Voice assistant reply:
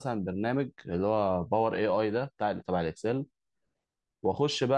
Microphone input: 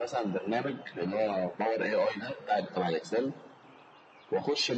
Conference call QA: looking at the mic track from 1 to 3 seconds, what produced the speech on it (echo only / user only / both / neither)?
echo only